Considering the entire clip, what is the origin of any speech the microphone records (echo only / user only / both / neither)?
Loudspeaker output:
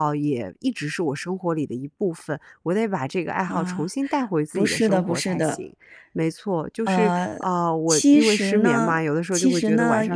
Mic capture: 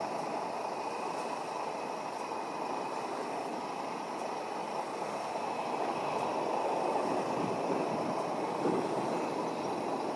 neither